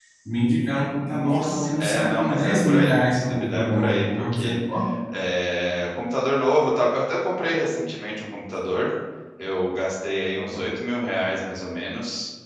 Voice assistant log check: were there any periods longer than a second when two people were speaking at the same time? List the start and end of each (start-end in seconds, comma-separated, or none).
1.0-4.6